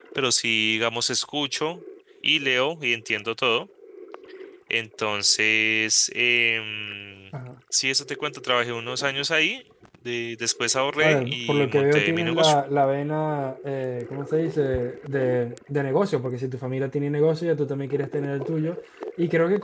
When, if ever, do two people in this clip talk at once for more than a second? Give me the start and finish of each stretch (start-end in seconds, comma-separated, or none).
11.0-12.5